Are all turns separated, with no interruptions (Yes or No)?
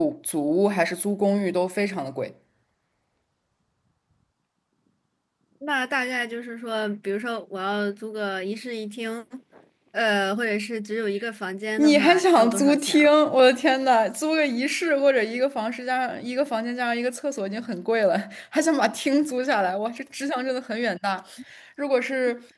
No